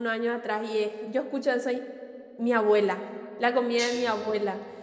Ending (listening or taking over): listening